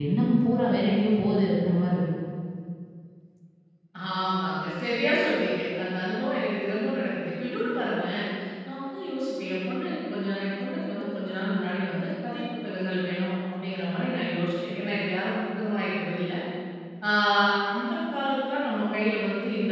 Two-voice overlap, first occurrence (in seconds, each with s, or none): none